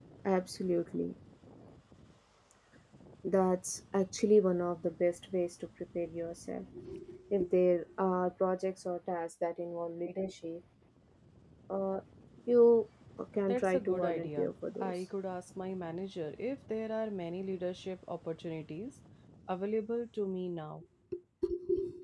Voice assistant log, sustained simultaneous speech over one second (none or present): present